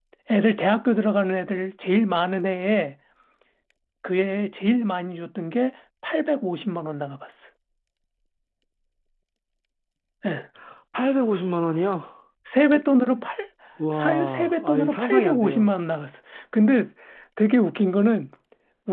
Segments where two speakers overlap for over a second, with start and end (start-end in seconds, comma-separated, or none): 13.9-15.7